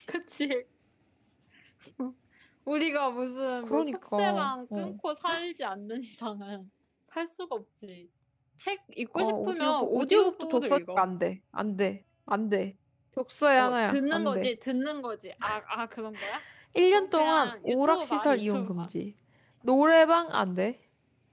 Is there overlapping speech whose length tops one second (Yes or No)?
Yes